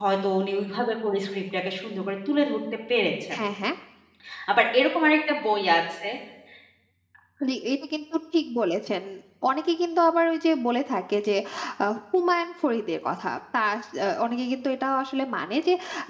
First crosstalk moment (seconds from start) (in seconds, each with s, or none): none